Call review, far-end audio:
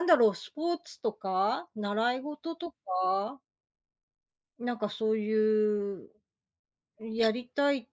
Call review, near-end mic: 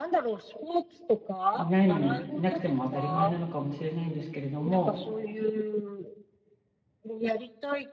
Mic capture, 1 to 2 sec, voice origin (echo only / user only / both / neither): both